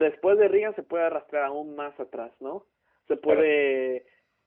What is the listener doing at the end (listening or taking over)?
listening